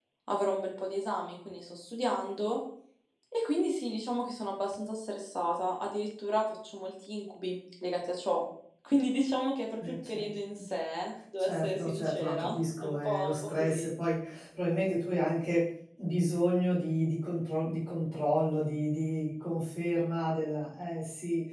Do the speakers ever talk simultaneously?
Yes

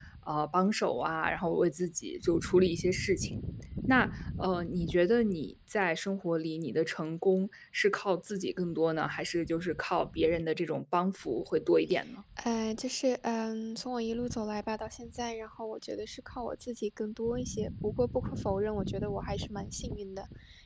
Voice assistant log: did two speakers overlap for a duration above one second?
No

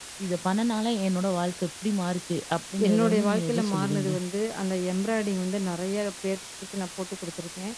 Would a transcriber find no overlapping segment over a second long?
No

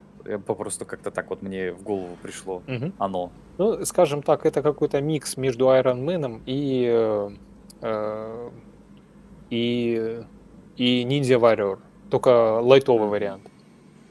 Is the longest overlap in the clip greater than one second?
No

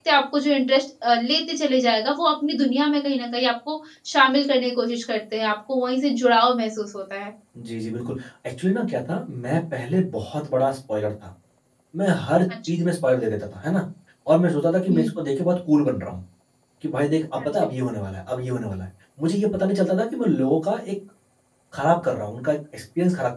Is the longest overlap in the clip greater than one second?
No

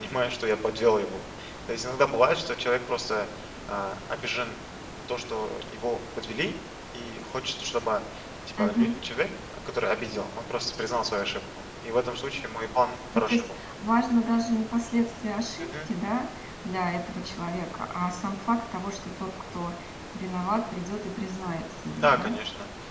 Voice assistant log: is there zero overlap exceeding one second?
Yes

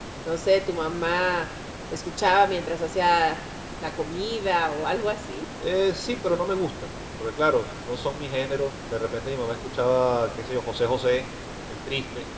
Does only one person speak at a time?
Yes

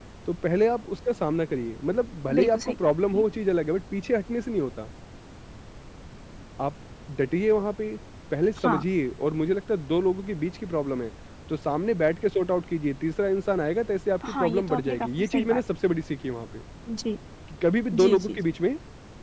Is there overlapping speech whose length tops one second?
Yes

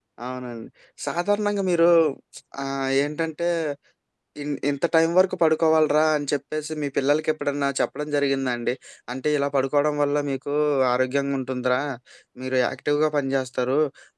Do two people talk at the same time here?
No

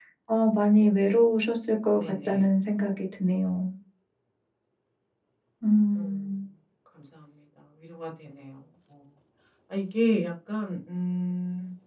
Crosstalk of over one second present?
No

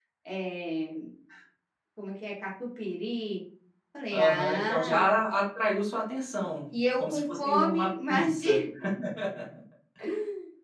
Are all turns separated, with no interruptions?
No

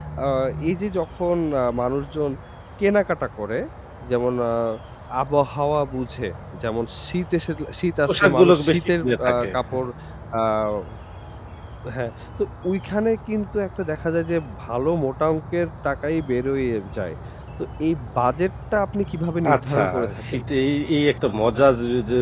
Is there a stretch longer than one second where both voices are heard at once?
Yes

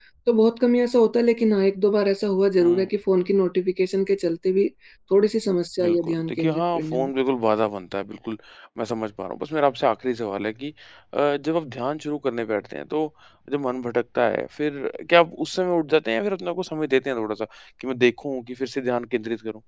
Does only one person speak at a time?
No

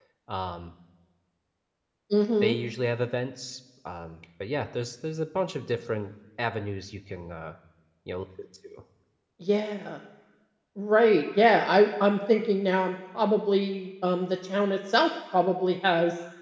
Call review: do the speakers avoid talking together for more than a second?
Yes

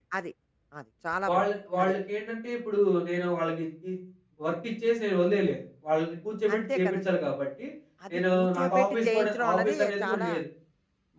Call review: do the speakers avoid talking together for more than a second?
No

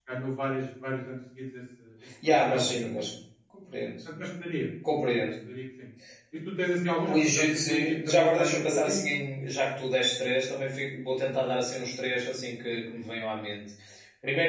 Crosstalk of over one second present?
Yes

